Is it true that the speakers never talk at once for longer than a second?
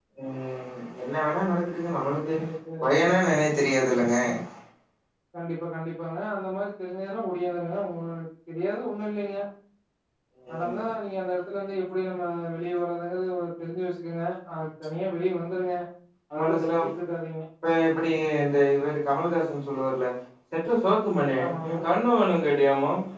Yes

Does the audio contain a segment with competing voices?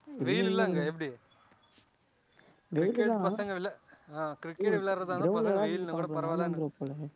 Yes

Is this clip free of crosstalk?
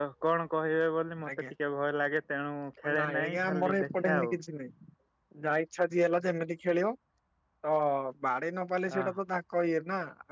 No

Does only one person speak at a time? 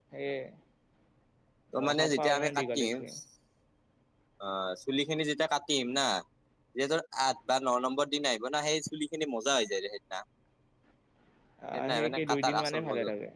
No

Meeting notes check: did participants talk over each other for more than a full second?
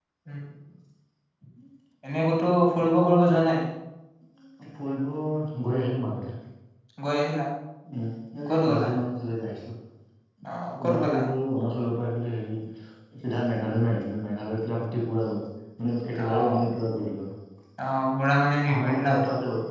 No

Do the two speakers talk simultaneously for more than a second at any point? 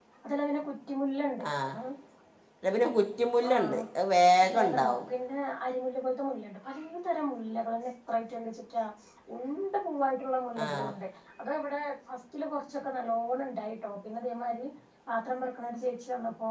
No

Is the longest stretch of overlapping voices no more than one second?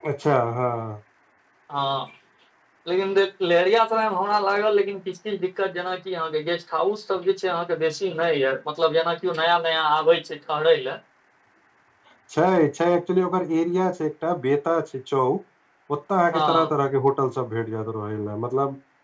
Yes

